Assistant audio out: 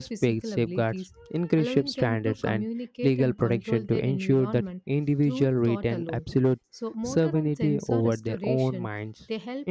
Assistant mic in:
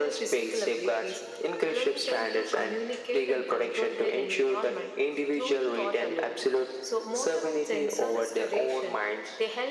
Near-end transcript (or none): none